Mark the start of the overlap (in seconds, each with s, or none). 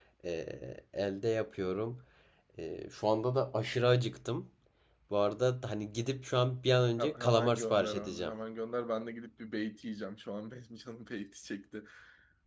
7.0 s